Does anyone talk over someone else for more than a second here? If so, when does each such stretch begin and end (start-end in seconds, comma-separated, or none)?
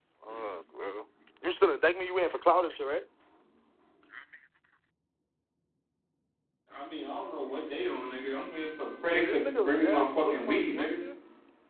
9.1-11.0